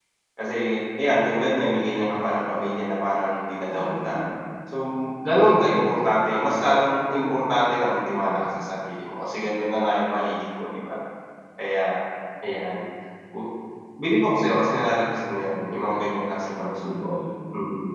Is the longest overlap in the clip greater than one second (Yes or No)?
No